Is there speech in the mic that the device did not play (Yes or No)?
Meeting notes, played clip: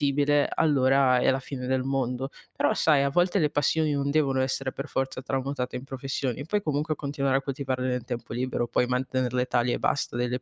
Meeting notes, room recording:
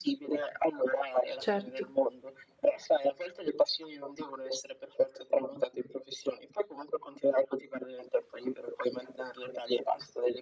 Yes